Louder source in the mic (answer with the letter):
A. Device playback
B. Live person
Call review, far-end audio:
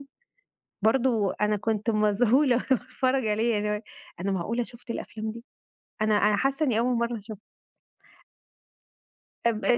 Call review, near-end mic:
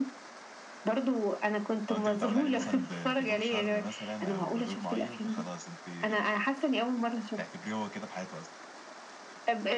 A